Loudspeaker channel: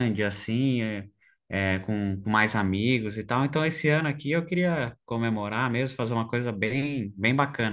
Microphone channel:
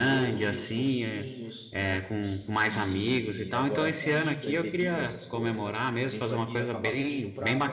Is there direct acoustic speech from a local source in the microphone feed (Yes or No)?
Yes